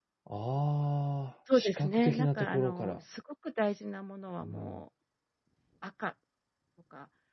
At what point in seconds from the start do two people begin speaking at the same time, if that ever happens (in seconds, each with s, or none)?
1.5 s